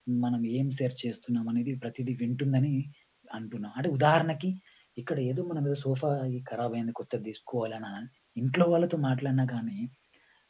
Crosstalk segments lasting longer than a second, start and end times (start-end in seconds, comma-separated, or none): none